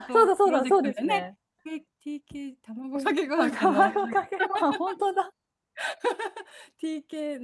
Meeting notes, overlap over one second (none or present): present